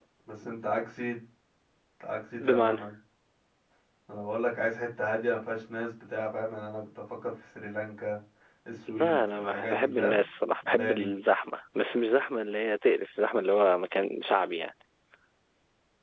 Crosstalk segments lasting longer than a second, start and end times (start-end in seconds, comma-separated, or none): 8.9-10.2